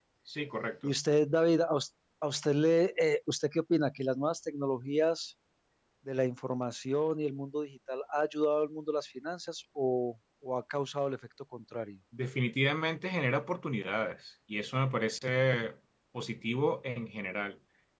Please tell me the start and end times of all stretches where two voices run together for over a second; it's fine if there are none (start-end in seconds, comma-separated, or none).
none